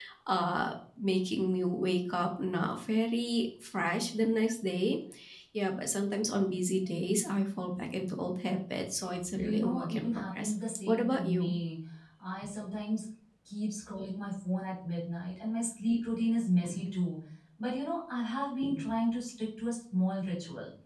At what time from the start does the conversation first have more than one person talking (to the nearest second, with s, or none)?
9 s